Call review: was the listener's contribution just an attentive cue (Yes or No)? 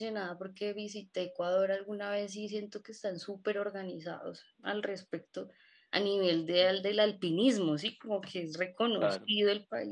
Yes